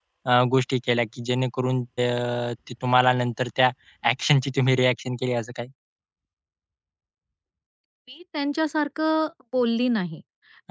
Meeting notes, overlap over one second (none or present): none